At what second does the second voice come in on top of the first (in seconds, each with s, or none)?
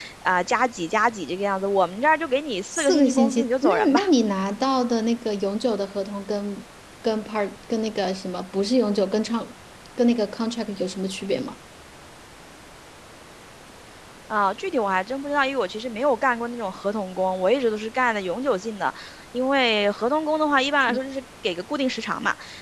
2.7 s